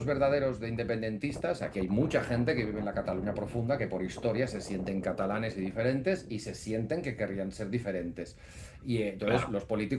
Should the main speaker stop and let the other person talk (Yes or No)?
No